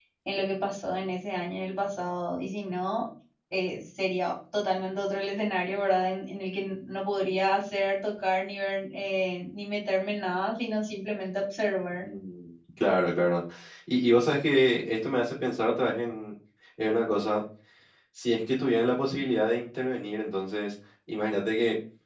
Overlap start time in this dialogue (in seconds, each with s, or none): none